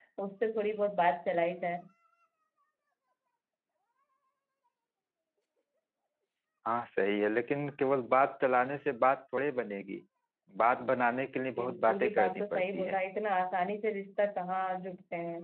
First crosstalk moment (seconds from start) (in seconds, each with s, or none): 11.6 s